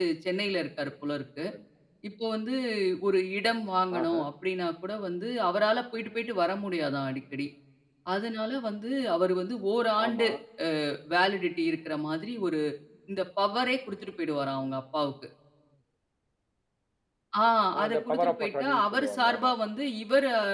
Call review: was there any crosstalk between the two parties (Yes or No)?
Yes